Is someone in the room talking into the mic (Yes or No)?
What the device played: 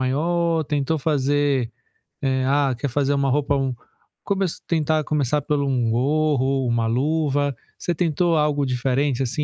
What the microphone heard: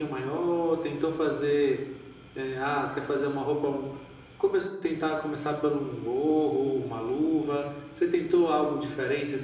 No